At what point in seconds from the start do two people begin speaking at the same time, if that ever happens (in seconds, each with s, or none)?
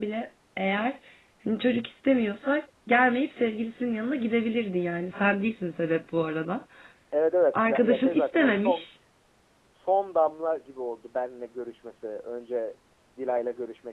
7.5 s